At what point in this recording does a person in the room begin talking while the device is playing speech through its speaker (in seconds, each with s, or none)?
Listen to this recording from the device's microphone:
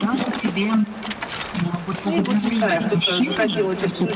2.0 s